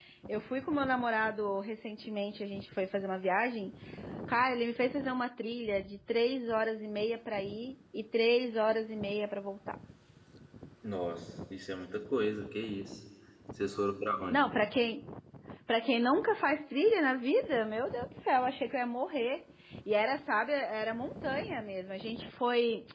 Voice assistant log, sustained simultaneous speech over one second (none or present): none